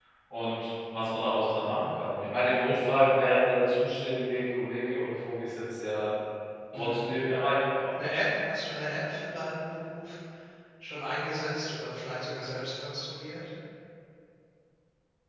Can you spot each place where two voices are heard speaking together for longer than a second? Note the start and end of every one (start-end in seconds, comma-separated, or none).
none